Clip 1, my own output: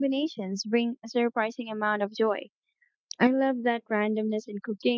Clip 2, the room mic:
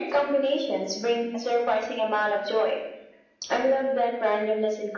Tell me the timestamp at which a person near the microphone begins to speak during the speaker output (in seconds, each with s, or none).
none